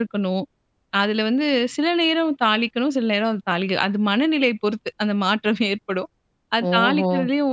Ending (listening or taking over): listening